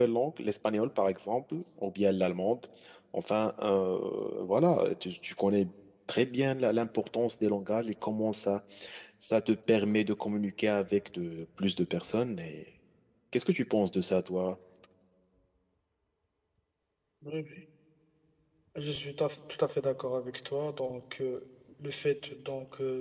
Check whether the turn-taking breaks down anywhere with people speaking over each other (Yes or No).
No